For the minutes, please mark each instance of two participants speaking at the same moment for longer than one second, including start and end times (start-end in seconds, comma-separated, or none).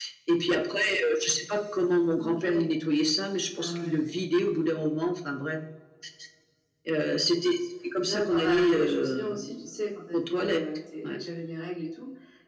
8.1-9.3